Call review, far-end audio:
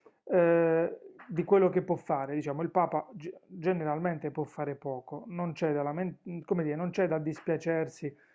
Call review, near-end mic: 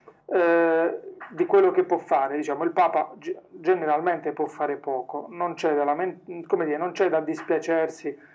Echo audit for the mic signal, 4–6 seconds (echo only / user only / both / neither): echo only